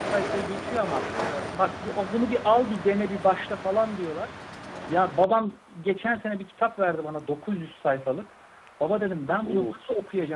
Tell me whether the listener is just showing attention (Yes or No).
Yes